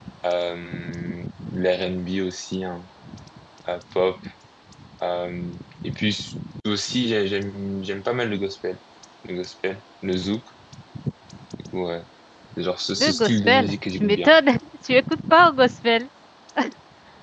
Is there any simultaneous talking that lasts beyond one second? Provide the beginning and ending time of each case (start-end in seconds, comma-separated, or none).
13.0-14.3